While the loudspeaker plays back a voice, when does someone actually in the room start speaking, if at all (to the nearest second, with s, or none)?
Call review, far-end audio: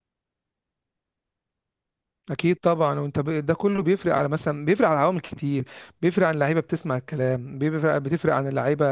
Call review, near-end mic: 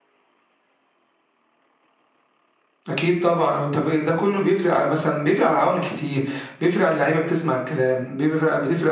none